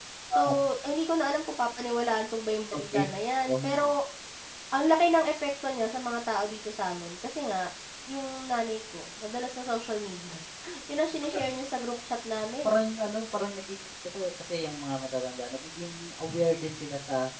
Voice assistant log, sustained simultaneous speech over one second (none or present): none